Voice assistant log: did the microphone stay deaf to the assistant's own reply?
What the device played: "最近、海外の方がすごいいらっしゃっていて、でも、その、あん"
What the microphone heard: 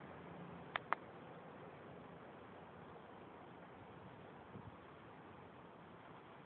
Yes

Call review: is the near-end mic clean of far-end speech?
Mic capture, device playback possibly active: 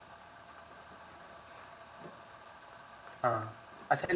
Yes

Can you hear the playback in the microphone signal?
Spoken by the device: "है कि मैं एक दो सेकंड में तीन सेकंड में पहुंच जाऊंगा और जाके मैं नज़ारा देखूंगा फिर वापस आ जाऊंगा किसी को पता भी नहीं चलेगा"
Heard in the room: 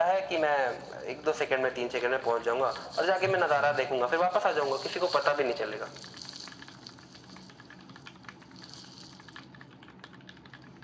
Yes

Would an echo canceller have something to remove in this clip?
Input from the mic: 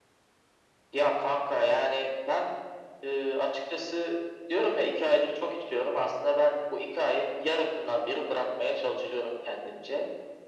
Yes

